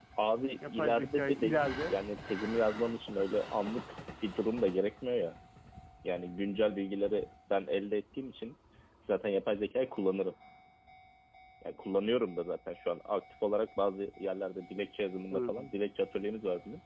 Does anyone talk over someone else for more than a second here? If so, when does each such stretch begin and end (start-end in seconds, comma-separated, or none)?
0.7-1.9